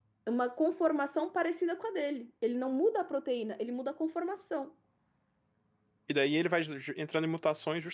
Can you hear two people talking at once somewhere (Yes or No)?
No